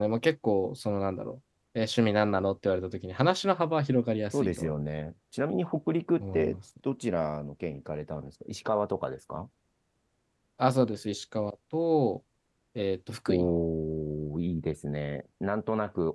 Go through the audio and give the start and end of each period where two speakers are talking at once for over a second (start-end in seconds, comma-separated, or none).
none